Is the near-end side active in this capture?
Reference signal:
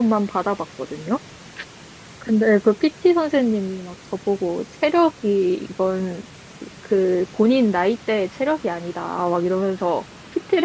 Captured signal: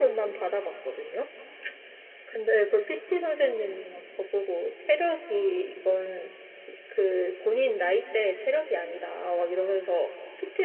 No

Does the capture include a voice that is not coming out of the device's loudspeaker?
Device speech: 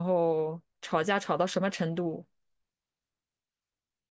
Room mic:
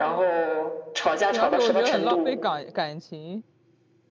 Yes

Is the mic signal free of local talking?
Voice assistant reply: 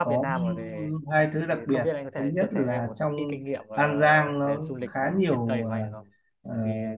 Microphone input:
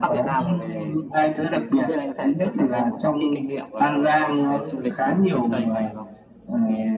Yes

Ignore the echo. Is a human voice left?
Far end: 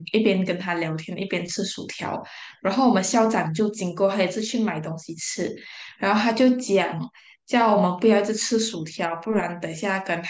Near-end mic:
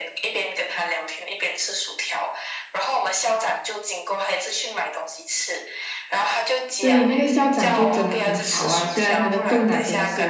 Yes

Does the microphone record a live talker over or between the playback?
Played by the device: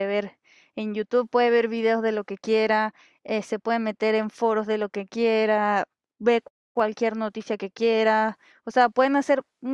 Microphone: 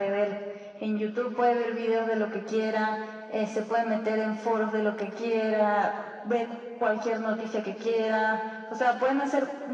No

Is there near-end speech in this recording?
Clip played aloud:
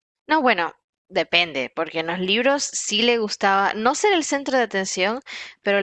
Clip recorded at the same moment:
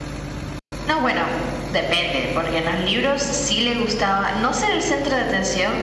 No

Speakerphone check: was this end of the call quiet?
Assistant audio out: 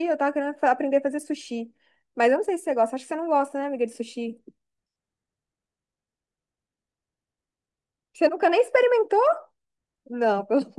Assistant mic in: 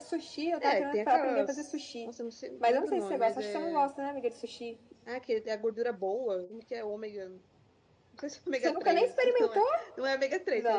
No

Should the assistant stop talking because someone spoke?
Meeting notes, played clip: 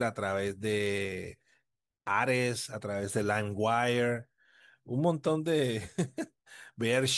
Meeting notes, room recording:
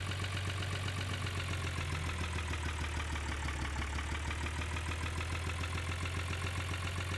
No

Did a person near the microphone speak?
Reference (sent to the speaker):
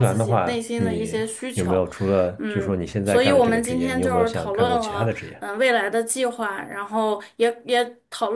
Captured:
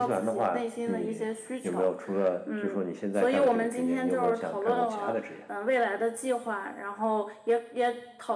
No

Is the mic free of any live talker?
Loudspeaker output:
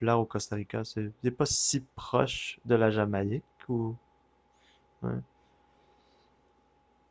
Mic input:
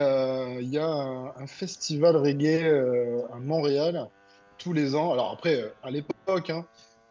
No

